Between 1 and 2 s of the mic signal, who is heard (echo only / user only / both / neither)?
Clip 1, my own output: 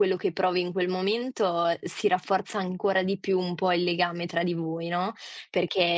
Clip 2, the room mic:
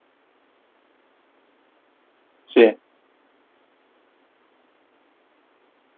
neither